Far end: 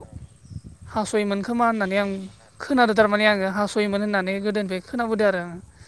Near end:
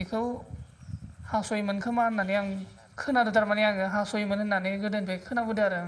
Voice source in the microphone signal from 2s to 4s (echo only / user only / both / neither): echo only